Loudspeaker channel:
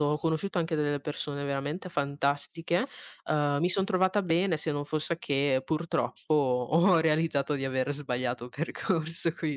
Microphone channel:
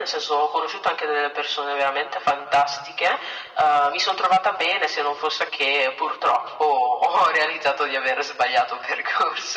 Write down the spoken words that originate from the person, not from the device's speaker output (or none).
none